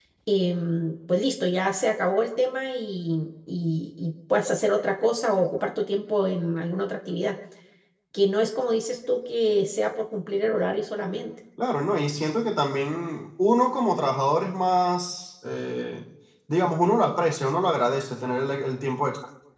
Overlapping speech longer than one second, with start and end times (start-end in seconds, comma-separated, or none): none